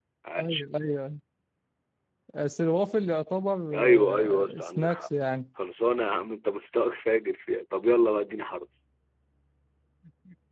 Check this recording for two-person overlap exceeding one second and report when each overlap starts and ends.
3.7-5.1

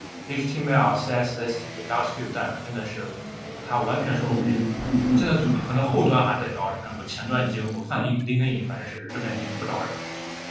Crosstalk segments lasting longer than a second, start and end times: none

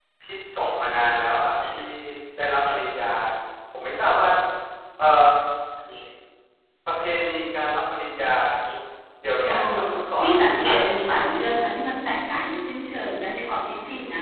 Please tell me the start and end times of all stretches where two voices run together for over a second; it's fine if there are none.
10.2-11.5

